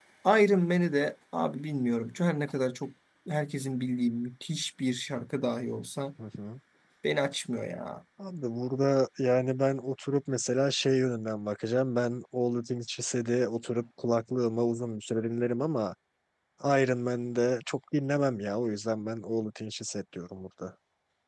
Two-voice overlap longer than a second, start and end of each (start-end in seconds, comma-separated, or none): none